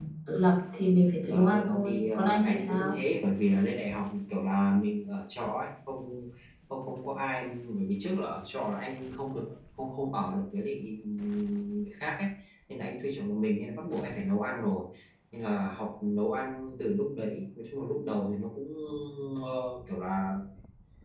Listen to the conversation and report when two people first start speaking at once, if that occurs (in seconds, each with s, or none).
1.3 s